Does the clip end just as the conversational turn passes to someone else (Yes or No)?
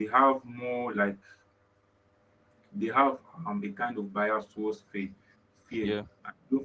No